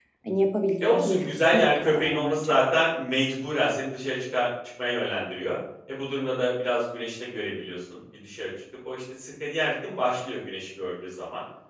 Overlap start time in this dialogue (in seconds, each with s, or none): 0.8 s